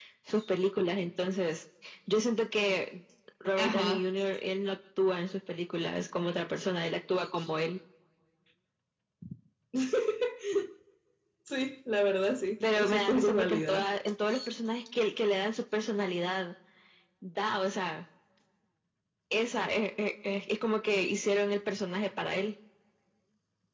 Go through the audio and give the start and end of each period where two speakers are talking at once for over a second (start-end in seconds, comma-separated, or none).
12.6-13.9